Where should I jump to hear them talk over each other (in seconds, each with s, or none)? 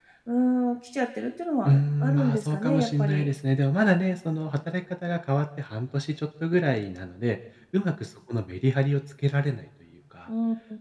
1.6 s